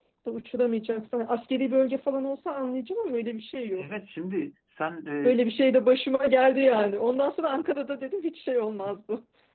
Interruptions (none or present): none